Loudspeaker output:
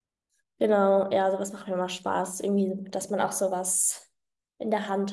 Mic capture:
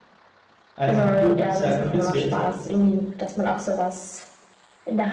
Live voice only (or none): also du- sehr kompliziert.